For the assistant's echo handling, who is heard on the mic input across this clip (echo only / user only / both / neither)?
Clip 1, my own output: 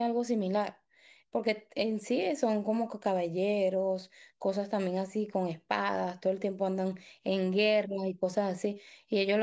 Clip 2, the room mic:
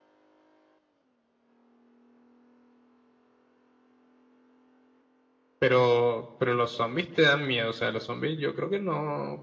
user only